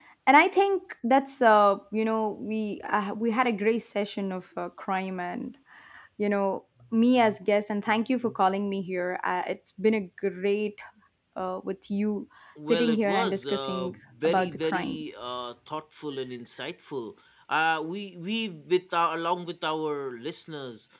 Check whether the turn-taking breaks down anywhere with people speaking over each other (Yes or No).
Yes